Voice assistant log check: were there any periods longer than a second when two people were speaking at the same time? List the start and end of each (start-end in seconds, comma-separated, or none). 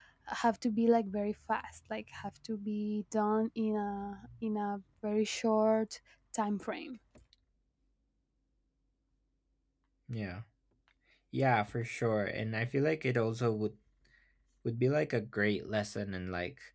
none